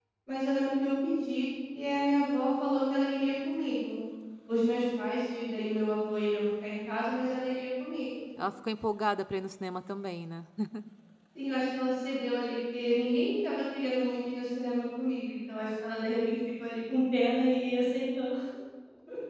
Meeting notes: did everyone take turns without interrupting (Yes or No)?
Yes